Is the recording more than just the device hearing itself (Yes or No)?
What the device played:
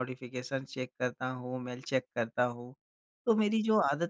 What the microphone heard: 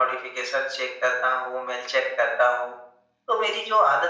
No